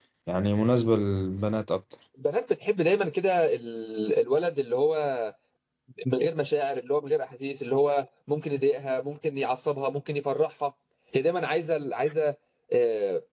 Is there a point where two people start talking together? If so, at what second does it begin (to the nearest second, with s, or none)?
none